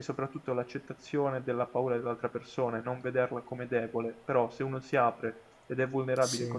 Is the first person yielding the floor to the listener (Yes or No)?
No